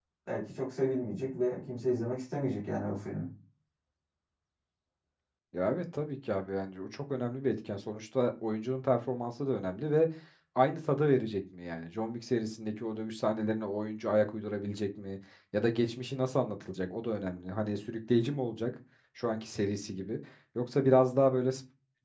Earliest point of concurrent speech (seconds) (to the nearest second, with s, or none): none